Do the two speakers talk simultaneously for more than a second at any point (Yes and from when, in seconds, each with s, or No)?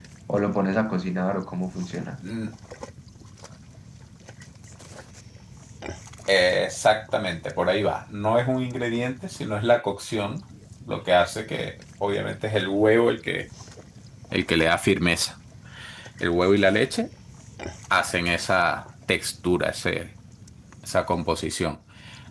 No